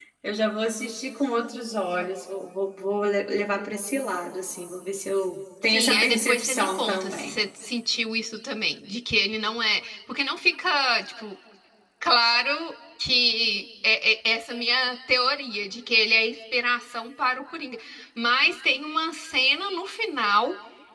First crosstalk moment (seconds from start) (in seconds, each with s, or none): 5.7 s